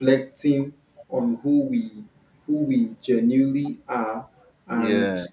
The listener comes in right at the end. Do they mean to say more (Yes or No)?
No